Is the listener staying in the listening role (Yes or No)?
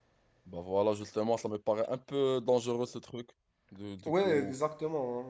No